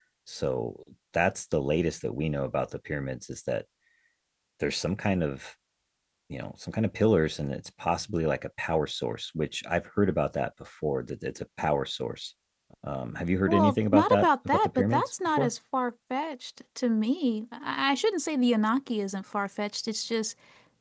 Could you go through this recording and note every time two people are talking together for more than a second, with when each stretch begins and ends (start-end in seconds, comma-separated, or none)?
13.5-15.5